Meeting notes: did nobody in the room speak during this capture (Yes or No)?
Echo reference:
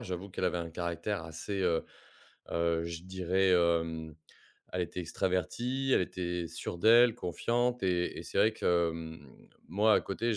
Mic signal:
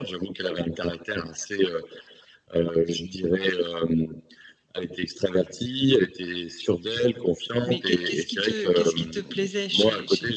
No